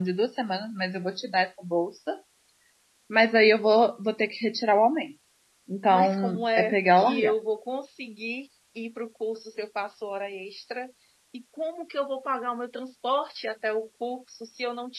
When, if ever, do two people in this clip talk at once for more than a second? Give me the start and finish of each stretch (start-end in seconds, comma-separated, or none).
5.9-7.3